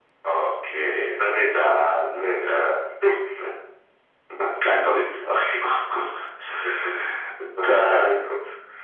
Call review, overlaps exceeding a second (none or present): present